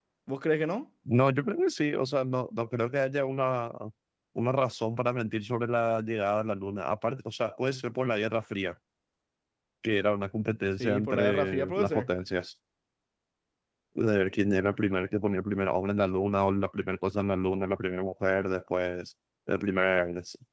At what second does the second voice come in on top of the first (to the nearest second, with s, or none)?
11 s